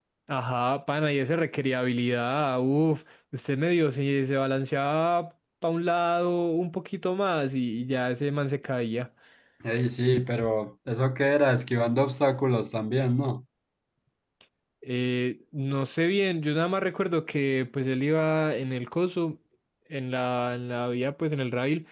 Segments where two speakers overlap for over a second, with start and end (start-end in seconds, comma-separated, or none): none